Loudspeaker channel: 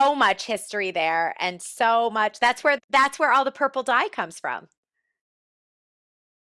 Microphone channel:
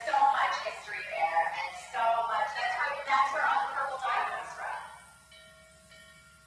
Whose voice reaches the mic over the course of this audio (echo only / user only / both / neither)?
echo only